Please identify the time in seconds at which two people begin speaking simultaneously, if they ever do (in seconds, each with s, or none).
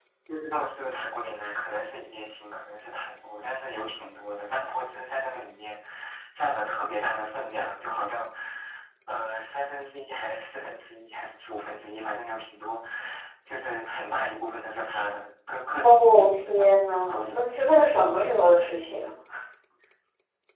15.8 s